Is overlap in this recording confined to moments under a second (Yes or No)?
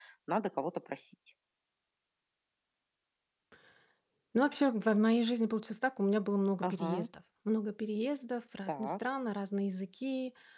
Yes